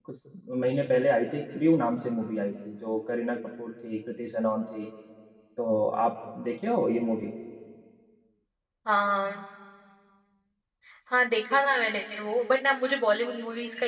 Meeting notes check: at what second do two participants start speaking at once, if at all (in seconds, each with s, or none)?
none